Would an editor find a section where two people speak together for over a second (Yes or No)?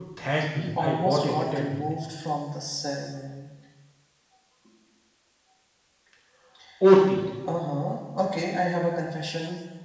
Yes